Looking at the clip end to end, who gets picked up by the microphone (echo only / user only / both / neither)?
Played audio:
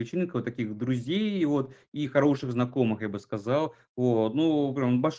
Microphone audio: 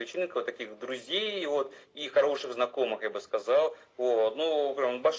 echo only